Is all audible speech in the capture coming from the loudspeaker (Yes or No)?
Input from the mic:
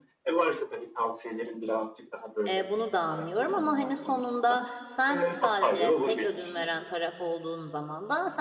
No